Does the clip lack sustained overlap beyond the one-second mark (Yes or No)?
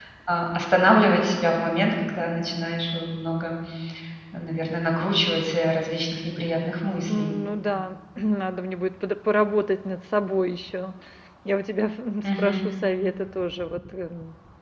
Yes